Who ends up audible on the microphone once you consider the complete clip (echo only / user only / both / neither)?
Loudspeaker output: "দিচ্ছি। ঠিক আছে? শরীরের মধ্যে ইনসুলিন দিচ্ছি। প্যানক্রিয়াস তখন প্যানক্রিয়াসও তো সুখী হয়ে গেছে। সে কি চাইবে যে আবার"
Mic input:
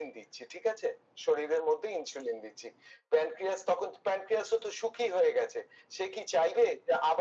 echo only